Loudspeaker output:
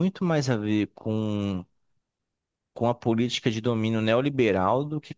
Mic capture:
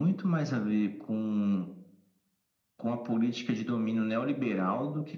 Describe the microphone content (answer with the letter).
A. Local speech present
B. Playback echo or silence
B